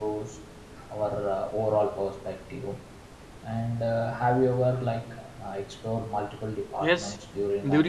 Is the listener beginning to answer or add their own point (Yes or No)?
Yes